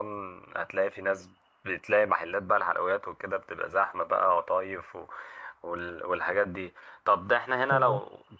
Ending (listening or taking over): listening